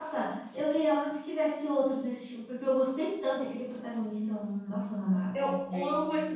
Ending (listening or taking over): taking over